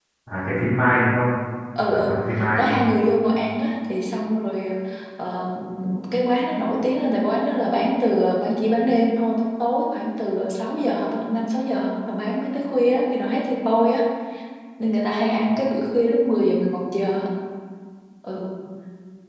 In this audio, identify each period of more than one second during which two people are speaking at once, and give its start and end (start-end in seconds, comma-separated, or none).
none